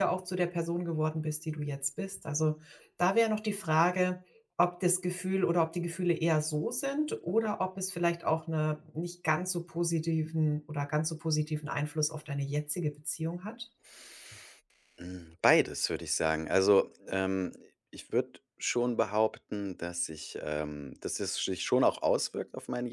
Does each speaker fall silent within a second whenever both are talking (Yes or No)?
Yes